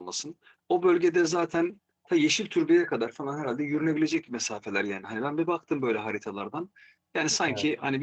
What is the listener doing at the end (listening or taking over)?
listening